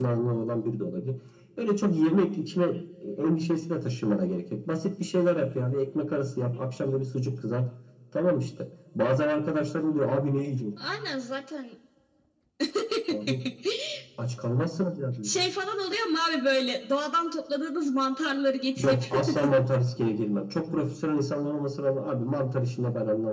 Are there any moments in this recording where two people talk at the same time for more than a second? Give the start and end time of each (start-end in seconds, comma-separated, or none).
none